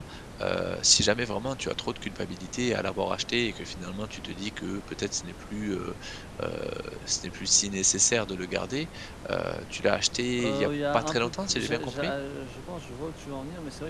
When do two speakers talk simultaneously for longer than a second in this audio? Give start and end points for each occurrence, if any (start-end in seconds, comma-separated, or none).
10.4-12.1